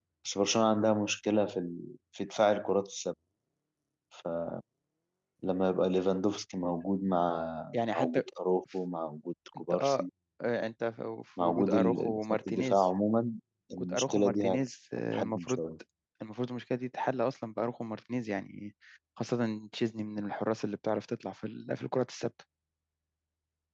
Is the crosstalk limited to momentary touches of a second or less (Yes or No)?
No